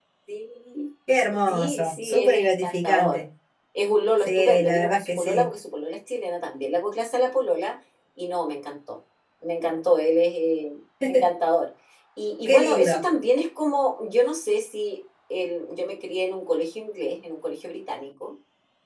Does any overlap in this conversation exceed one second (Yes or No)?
Yes